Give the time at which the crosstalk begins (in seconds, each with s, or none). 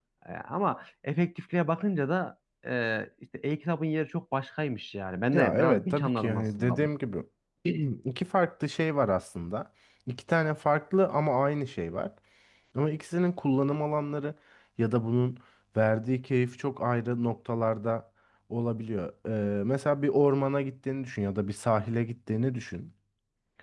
5.3 s